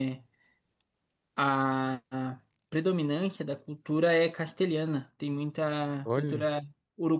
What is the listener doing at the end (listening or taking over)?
listening